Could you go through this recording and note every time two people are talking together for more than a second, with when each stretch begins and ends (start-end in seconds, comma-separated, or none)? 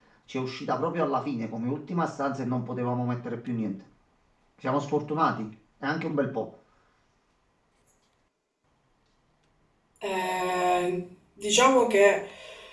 none